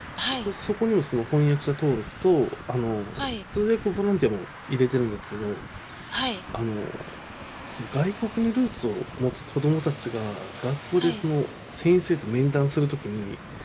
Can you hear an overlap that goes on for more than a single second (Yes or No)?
No